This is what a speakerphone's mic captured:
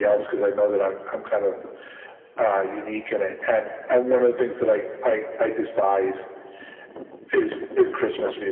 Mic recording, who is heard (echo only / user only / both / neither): echo only